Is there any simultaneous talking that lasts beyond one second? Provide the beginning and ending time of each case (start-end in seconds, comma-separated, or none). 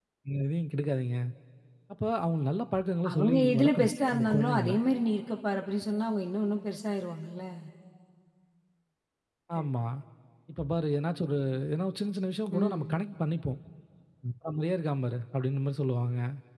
3.1-4.7